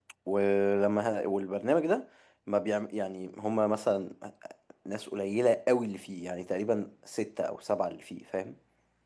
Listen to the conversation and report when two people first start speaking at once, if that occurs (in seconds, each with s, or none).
none